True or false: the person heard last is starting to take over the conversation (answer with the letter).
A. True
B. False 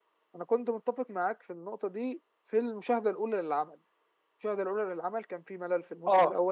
B